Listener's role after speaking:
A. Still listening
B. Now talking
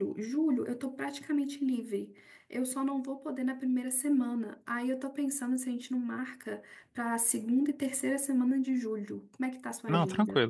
B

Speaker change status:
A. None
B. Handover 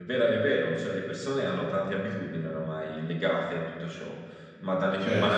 B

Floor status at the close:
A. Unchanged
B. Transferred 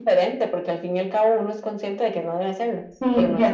B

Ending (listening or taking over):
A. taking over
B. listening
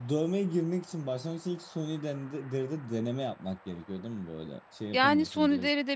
A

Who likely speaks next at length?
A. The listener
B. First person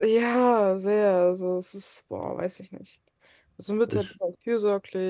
B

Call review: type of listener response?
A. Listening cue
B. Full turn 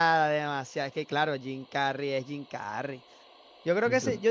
A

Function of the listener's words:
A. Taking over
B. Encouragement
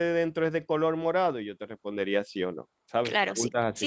A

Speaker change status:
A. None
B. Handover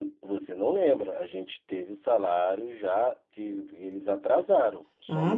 B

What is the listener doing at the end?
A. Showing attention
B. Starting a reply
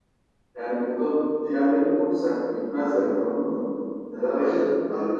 B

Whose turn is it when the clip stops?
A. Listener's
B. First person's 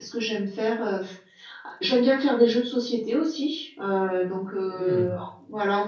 B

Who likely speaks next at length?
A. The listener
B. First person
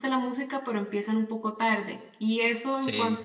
B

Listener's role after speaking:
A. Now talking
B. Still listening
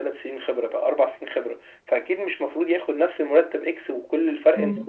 A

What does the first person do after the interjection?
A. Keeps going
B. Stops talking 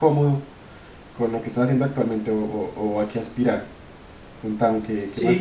B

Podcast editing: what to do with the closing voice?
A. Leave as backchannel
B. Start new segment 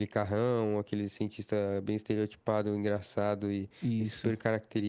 A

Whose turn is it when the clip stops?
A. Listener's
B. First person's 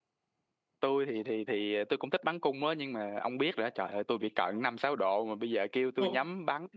B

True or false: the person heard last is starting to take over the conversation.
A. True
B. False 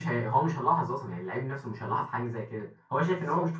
A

